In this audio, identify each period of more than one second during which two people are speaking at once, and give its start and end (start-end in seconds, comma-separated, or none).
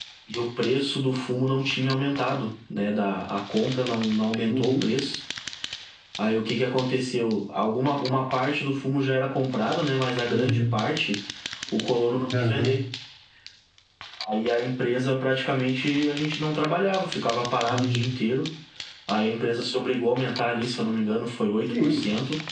none